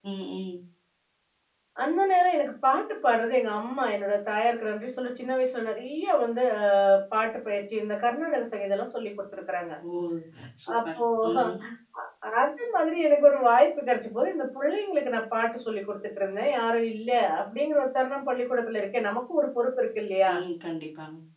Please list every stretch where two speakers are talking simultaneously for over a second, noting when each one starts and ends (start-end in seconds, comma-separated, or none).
none